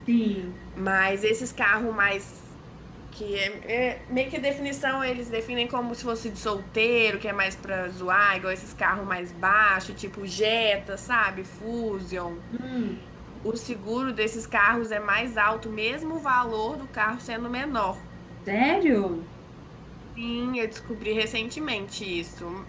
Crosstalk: none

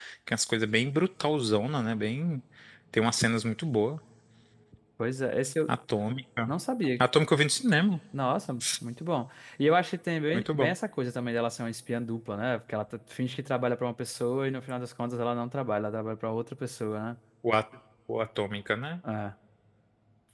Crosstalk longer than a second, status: none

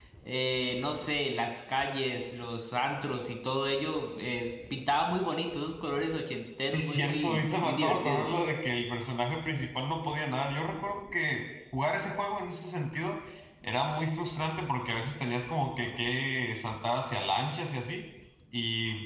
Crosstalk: present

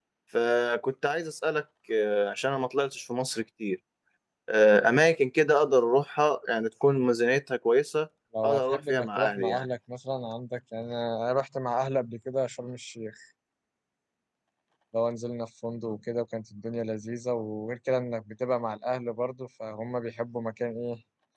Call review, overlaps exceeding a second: present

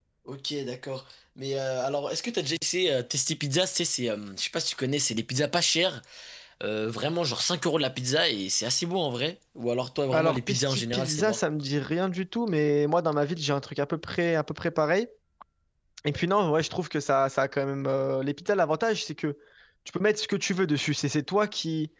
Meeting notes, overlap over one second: present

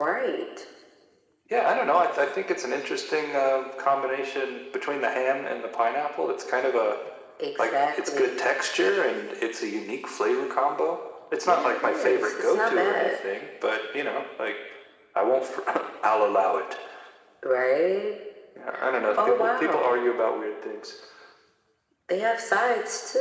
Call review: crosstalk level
present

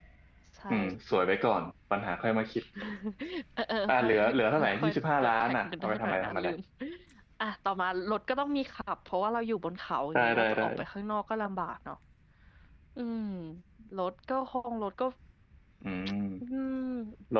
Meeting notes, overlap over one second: present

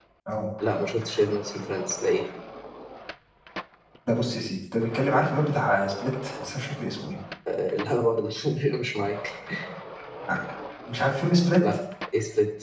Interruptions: none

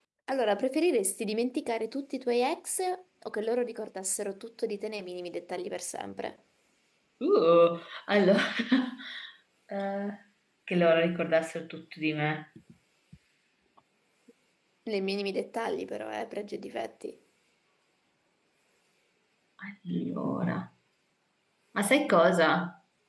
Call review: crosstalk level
none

